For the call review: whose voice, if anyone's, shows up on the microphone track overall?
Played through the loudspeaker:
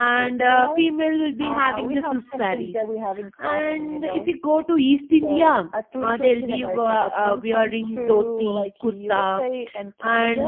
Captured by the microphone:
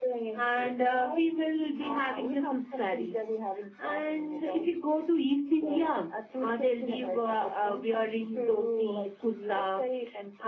echo only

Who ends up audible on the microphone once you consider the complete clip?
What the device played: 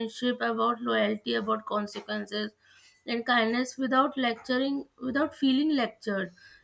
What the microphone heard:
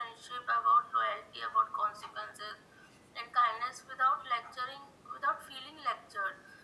echo only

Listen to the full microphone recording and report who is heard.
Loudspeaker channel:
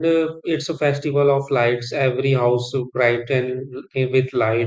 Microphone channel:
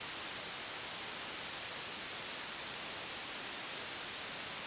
neither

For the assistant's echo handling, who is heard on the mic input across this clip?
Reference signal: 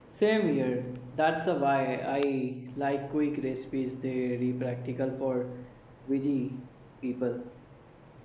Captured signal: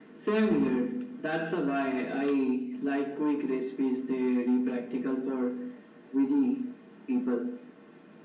echo only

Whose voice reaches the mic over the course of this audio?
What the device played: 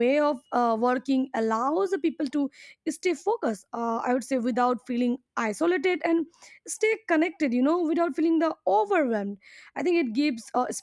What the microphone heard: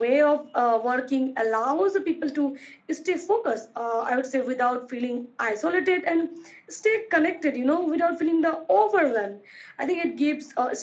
echo only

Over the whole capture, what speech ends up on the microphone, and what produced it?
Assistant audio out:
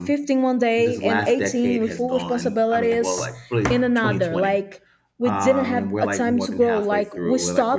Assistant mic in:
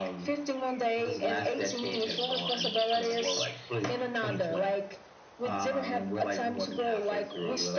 echo only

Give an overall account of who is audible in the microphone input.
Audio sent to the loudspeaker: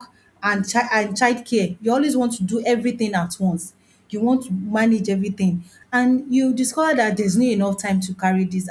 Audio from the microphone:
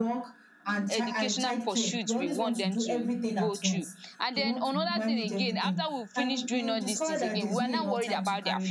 both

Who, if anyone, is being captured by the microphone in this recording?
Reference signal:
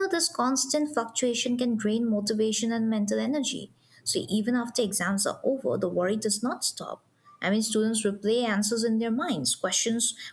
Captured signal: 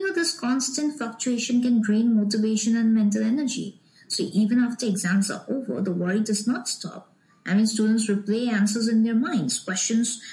echo only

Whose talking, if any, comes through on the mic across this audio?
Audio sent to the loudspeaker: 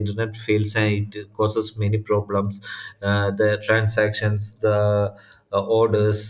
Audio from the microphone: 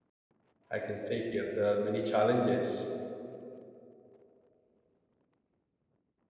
user only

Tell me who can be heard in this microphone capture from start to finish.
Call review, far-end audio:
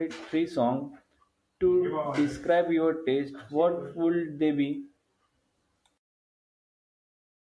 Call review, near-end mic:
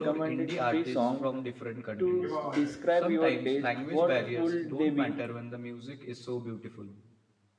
both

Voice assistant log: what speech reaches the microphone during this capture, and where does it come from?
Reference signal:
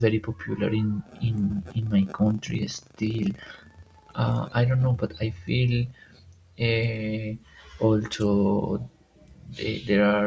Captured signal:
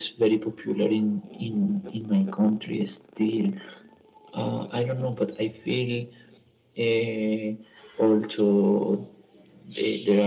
echo only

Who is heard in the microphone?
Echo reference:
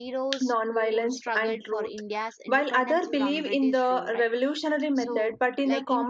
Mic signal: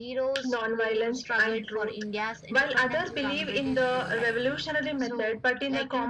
echo only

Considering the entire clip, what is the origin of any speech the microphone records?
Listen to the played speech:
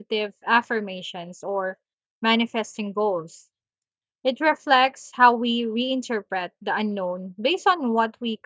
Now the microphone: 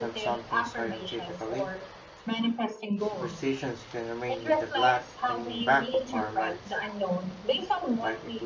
both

